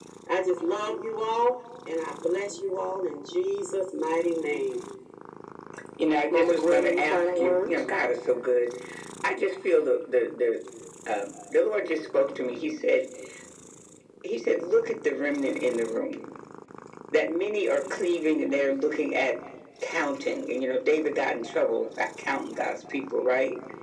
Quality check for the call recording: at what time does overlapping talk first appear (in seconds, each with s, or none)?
6.3 s